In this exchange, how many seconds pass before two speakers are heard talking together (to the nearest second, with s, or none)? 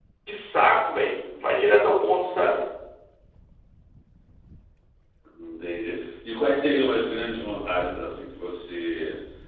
none